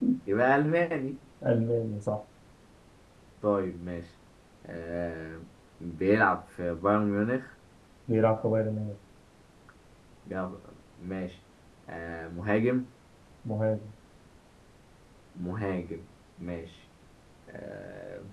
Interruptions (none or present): none